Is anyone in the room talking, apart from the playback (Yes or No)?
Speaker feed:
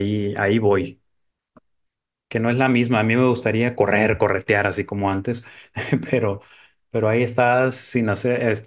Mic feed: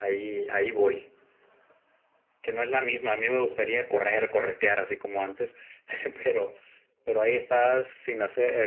No